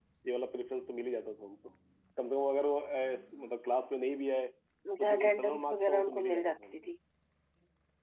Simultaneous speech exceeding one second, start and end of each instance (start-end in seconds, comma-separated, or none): 5.0-6.7